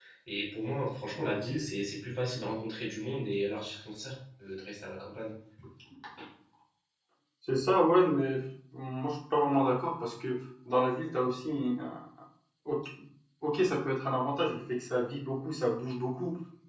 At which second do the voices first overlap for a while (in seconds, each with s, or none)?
none